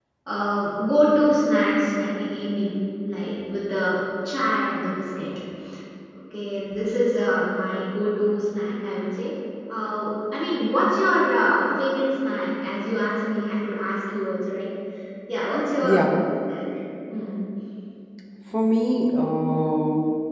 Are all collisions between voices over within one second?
Yes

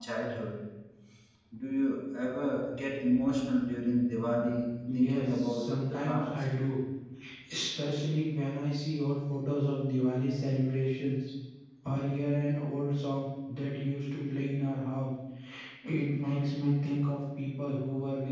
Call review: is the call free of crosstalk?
No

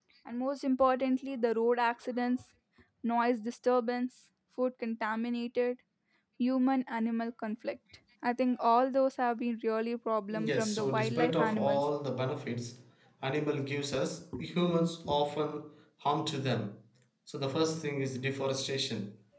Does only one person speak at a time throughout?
No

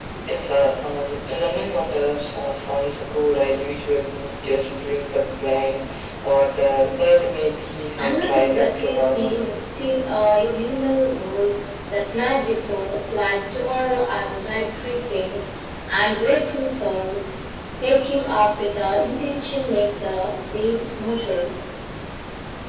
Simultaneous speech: Yes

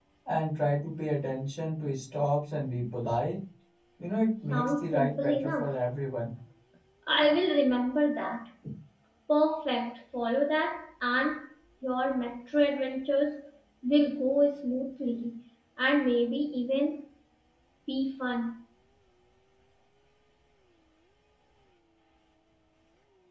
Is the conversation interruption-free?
No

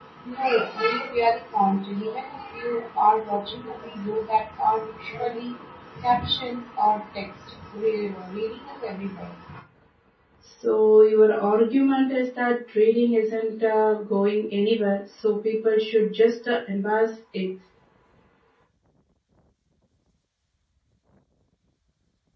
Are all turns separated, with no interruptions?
Yes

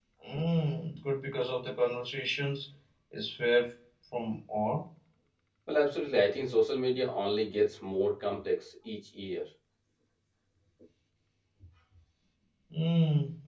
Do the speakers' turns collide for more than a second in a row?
No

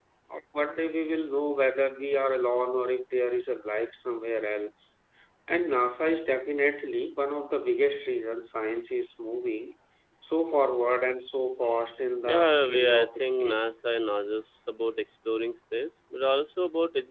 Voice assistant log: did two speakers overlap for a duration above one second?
Yes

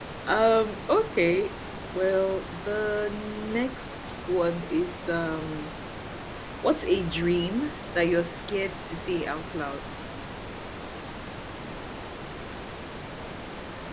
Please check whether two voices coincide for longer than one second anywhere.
No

